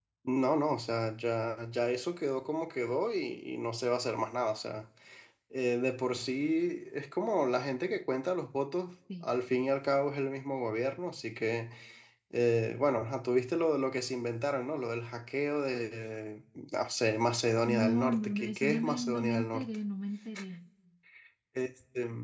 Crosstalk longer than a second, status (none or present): present